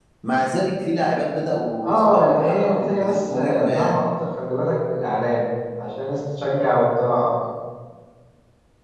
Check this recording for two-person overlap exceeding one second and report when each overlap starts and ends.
1.8-4.0

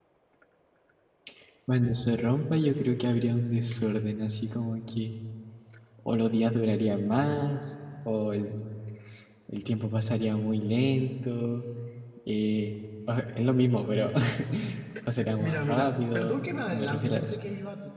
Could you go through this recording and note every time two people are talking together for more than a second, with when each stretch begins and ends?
15.4-17.4

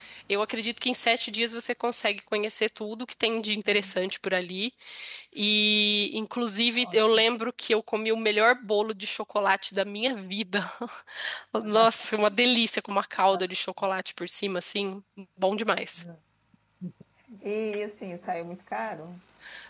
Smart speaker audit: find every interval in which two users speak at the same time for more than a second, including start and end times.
none

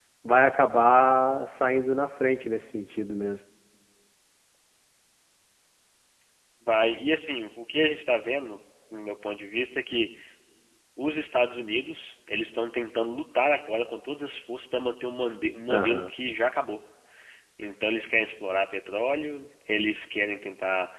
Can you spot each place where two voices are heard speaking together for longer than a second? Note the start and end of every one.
none

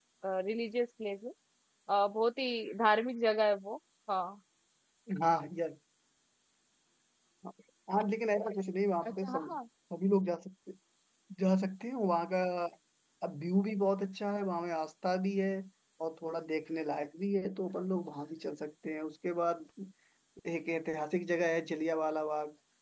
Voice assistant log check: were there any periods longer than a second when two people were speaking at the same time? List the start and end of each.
none

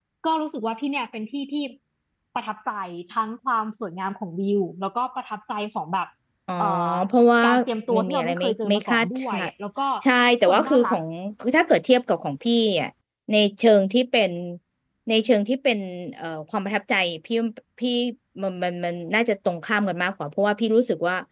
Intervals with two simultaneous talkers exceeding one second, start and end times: 7.9-9.5

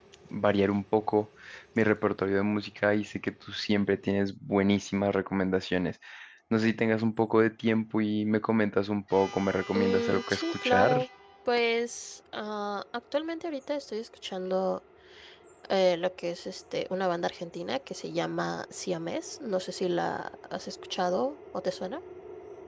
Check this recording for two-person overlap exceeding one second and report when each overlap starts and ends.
9.7-11.0

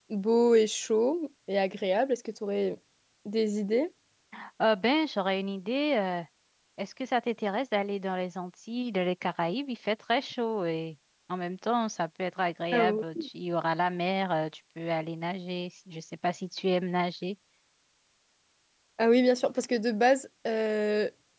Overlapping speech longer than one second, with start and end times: none

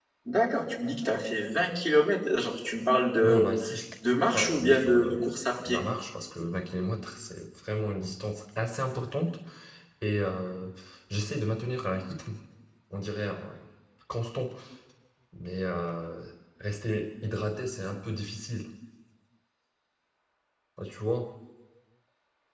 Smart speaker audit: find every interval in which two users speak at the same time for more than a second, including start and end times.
4.3-5.8

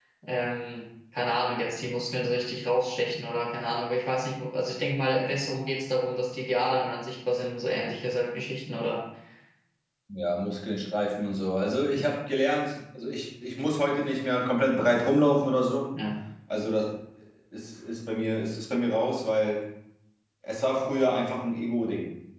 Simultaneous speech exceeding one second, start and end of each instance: none

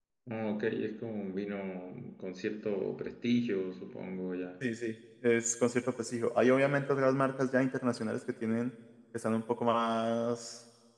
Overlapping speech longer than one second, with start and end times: none

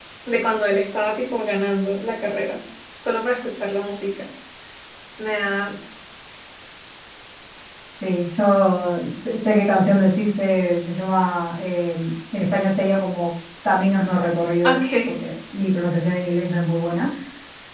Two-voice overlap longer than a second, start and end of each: none

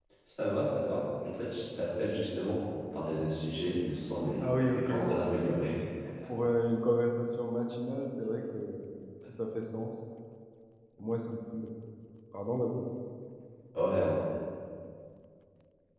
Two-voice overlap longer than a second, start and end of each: 4.4-5.6

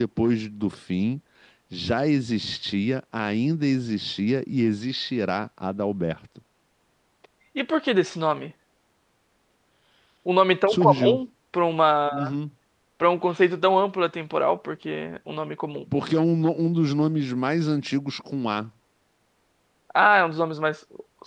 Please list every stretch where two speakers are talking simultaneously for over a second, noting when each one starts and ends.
none

